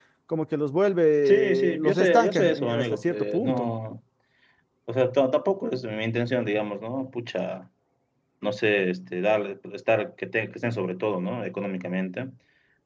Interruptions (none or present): present